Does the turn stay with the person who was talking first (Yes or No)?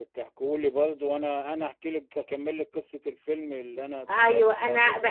No